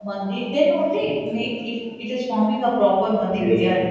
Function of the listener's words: taking over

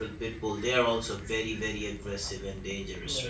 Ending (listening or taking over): taking over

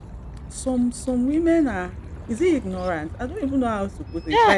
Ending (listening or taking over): taking over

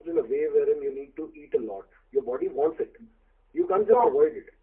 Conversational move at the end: listening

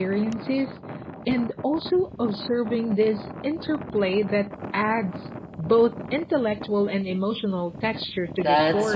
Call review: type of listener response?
taking over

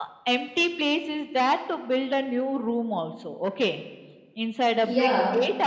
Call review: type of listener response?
listening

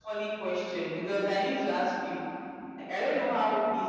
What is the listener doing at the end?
listening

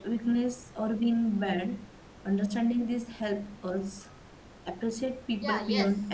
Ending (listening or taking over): taking over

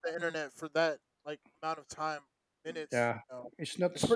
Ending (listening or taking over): taking over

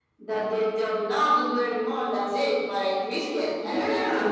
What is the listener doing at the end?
taking over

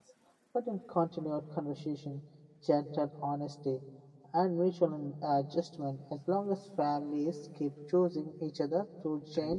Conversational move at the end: listening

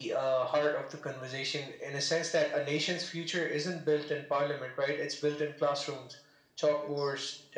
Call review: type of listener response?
listening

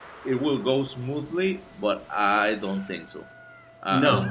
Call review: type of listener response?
taking over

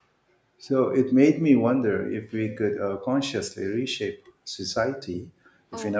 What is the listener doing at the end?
taking over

